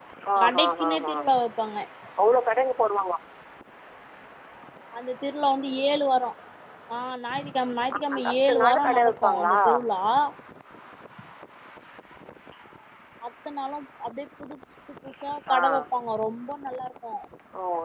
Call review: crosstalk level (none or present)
present